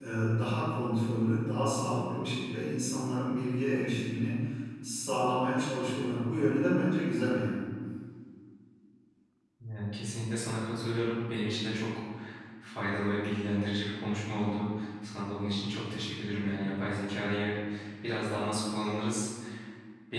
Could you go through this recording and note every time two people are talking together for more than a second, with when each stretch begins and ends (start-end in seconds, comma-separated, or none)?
none